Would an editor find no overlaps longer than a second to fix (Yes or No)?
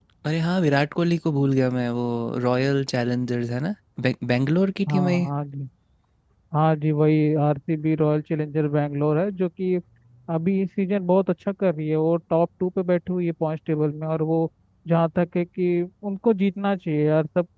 Yes